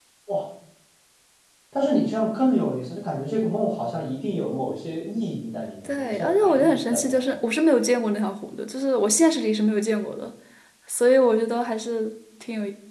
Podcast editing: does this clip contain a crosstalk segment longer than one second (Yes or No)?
Yes